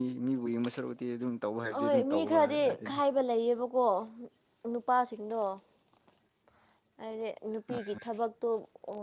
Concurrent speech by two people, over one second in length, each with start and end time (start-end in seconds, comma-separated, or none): 1.8-3.0